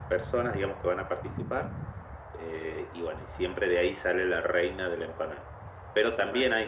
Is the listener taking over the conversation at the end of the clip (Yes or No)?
No